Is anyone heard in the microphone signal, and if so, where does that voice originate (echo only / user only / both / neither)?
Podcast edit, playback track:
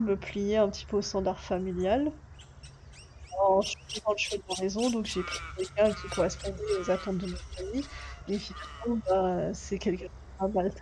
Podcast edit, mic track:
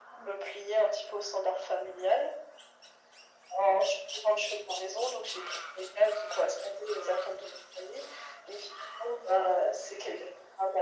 echo only